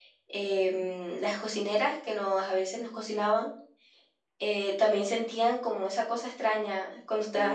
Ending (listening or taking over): taking over